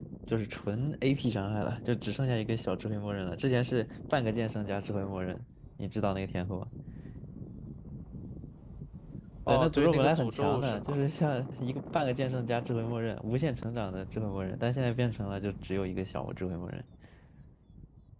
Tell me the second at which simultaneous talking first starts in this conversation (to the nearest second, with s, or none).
9 s